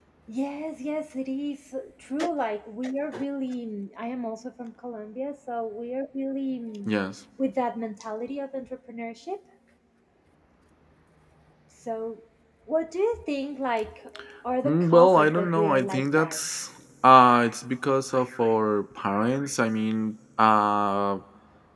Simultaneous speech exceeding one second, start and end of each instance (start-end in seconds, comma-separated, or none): 14.7-16.4